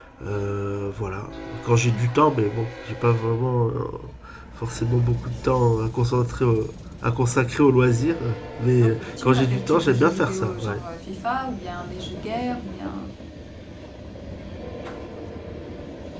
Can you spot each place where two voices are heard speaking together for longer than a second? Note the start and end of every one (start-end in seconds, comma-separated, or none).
8.8-10.8